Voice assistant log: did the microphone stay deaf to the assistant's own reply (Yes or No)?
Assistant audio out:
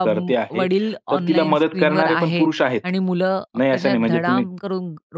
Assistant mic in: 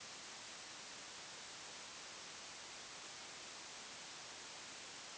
Yes